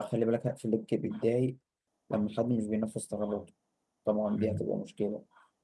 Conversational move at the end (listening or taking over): listening